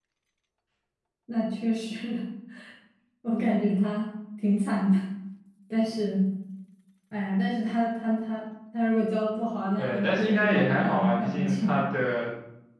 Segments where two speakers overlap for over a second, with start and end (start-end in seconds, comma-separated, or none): 9.8-11.8